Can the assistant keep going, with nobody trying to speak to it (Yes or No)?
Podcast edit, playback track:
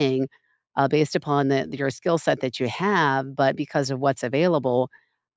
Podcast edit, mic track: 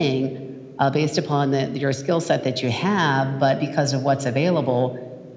Yes